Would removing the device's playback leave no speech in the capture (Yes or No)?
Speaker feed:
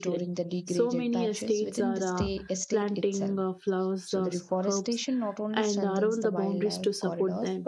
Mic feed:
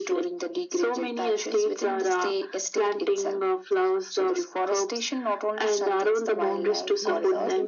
No